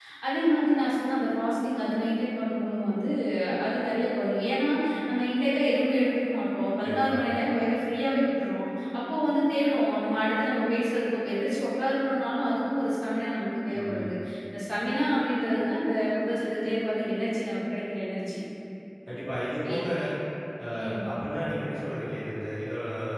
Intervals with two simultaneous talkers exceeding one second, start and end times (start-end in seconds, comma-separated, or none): none